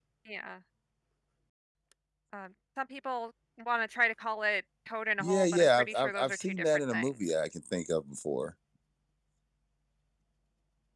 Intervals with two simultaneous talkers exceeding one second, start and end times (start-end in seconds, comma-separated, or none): 5.2-7.1